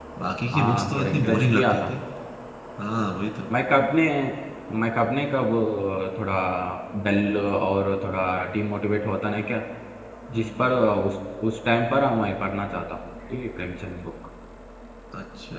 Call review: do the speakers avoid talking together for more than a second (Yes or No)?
No